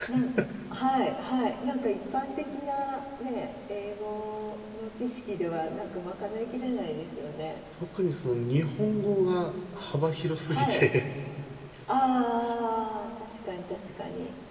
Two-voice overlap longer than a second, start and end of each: none

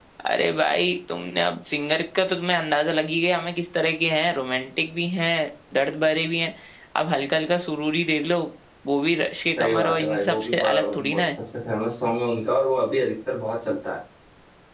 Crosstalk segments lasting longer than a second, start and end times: 9.6-11.2

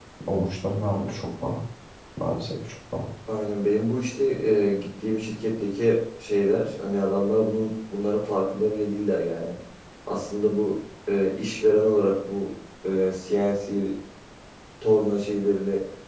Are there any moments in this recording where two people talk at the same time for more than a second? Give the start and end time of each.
none

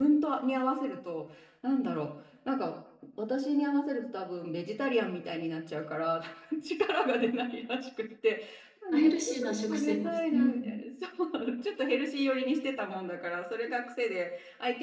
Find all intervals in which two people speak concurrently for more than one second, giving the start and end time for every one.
8.9-10.7

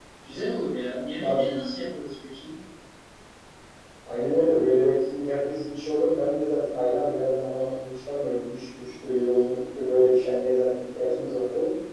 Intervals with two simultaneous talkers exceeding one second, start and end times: none

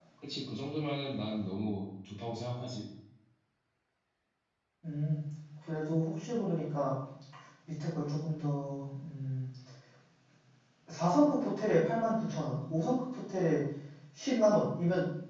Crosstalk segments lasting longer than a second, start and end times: none

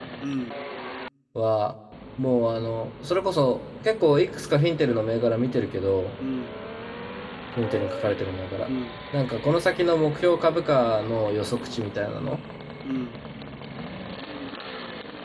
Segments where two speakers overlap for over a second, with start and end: none

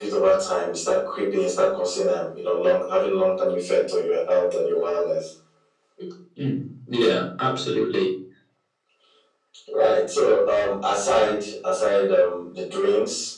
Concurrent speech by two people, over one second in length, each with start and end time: none

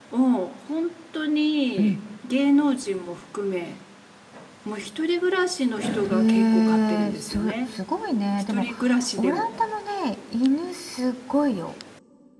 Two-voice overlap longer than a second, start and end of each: 6.0-7.5

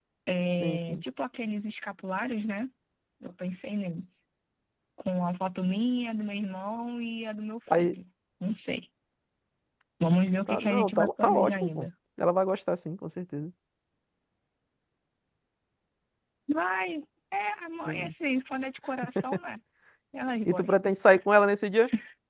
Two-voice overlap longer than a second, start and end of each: 10.5-11.9

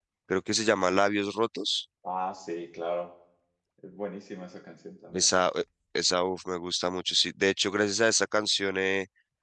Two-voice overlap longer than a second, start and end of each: none

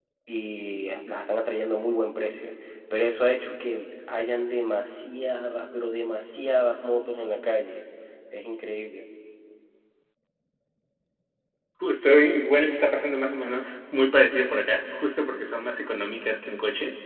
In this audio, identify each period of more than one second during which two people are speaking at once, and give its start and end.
none

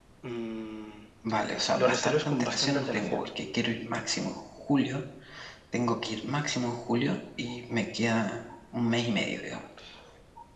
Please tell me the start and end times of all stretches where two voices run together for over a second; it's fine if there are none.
1.7-3.3

